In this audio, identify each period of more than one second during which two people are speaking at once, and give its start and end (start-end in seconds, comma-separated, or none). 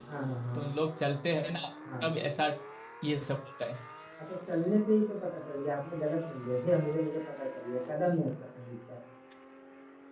none